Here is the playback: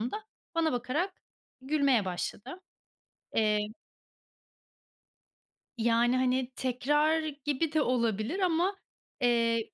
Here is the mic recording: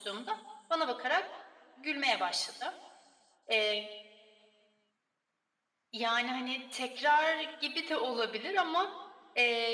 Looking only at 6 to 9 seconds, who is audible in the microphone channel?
echo only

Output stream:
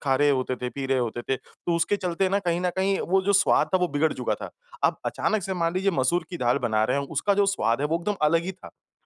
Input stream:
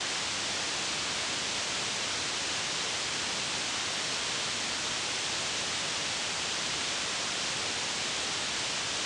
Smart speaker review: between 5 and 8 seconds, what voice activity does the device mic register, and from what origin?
neither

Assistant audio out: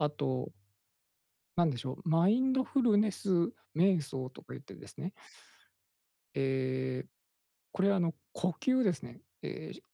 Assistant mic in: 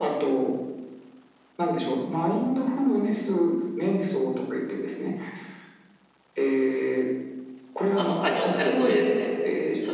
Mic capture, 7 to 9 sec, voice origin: both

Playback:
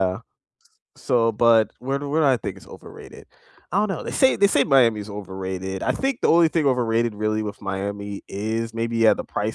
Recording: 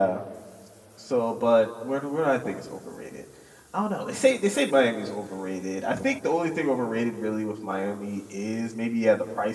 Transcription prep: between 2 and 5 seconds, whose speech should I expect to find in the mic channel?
echo only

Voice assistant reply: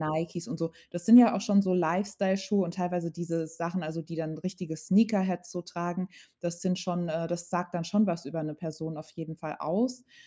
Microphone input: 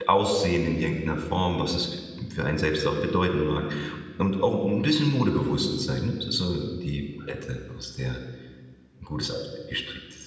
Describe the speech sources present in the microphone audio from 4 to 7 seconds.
user only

